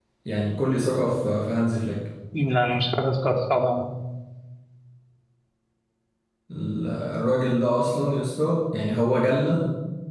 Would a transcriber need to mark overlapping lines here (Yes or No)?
No